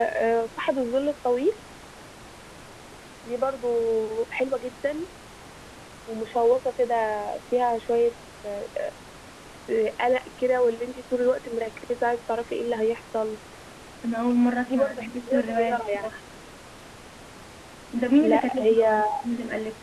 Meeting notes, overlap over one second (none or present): present